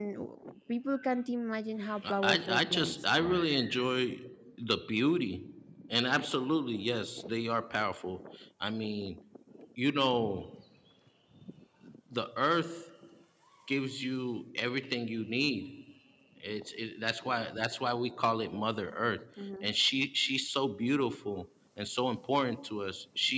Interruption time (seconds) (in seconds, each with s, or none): 2.1 s